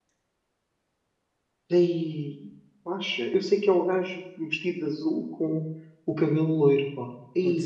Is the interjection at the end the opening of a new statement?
Yes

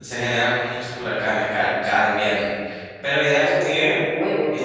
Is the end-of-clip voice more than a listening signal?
Yes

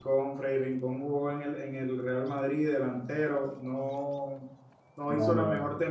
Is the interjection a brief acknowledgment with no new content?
Yes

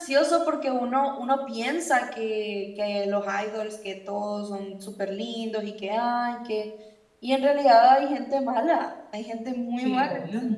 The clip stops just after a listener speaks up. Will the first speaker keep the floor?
No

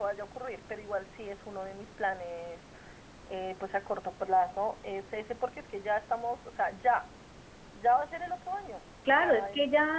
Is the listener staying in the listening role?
No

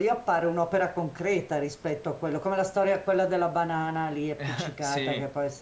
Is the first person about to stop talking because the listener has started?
No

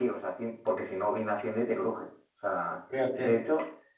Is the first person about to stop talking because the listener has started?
No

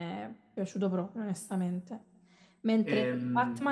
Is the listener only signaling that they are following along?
Yes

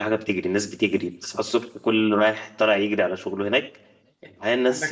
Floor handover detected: No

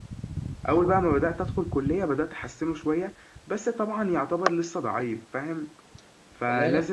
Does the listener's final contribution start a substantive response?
No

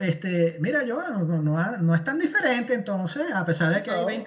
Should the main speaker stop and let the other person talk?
Yes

